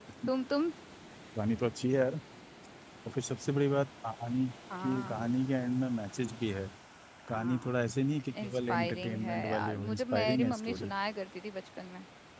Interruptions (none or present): present